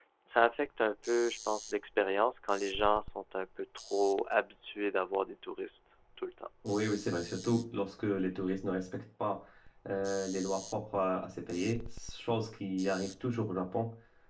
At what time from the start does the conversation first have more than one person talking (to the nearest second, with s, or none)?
none